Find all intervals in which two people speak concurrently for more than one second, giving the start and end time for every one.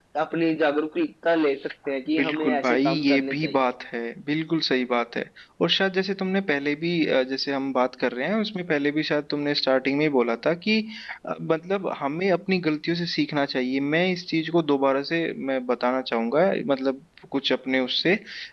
2.2-3.6

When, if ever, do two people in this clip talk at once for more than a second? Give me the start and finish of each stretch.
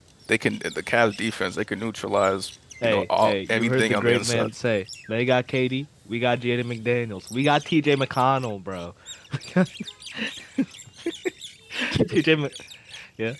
2.8-4.5

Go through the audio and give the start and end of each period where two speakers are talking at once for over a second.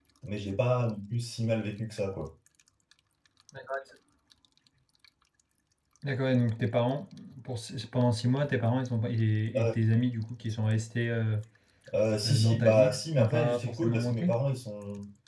12.2-14.3

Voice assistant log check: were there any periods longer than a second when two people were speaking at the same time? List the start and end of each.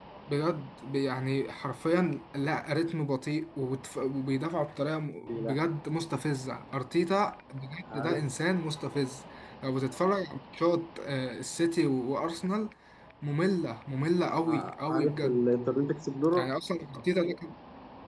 14.3-15.5

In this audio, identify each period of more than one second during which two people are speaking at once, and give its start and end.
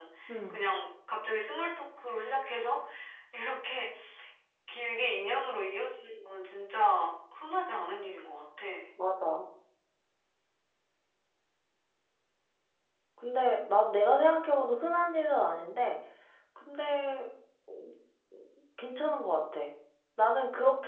none

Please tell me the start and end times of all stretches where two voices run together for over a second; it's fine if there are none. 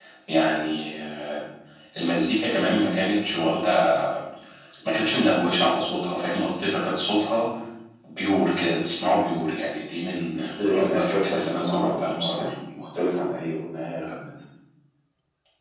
10.6-12.5

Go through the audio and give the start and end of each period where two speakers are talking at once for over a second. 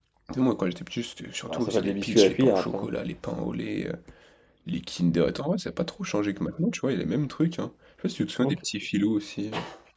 1.5-2.9

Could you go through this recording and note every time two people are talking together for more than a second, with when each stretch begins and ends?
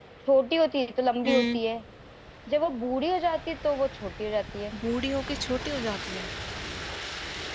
none

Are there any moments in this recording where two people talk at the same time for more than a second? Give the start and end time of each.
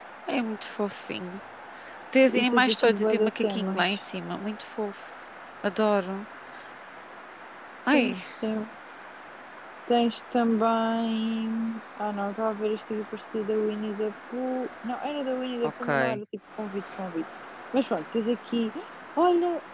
2.3-3.9

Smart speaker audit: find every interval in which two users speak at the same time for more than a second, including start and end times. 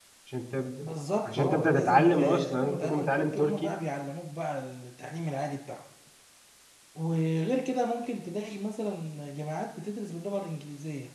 1.3-3.7

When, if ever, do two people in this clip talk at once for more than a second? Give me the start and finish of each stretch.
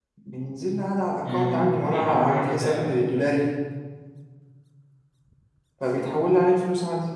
1.3-2.9

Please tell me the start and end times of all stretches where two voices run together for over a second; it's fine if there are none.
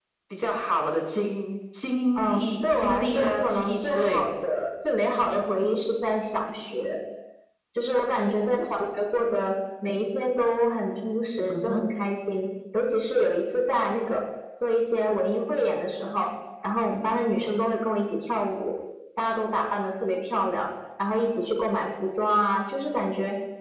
2.1-4.2

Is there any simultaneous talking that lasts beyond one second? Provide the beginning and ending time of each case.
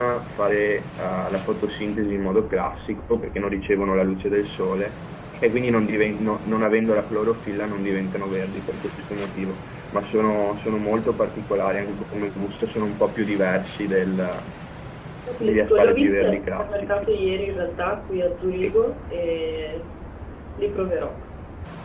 15.4-17.2

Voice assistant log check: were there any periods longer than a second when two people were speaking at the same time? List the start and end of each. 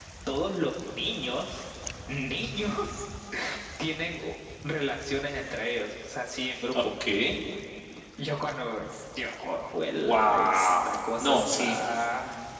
10.0-11.8

